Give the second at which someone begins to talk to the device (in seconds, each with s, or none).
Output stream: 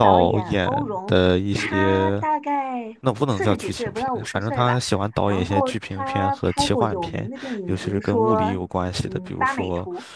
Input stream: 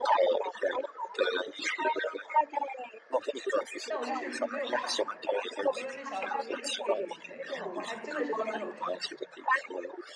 3.9 s